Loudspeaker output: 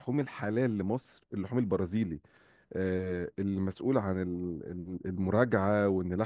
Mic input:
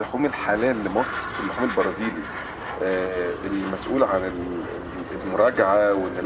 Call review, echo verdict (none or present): present